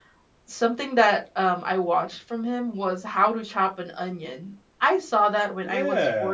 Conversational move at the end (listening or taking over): taking over